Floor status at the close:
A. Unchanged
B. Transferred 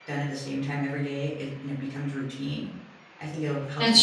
A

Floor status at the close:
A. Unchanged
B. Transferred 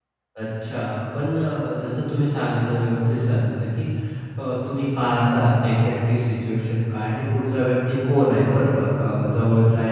A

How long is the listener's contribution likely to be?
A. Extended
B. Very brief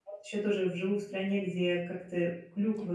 B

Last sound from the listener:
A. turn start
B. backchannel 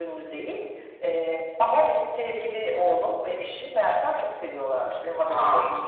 B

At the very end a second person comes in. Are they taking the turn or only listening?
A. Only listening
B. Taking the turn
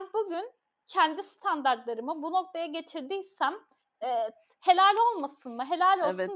B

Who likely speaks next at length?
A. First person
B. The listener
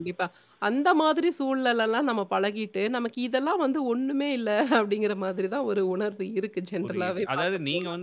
B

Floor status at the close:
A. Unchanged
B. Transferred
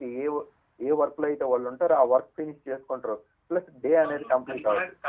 B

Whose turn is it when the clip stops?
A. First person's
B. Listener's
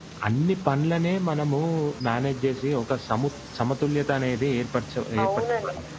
B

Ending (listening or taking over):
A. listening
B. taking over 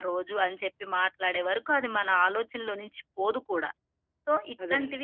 A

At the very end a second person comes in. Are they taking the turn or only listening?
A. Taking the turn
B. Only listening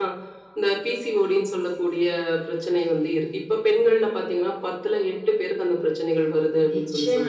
A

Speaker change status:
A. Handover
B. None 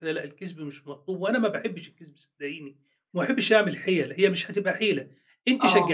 B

